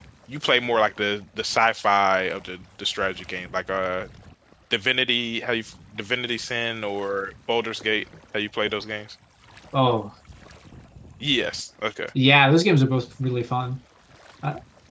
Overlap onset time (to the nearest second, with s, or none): none